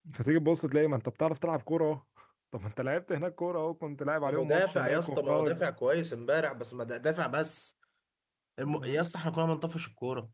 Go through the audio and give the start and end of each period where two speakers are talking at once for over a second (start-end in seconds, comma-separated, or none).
4.2-5.5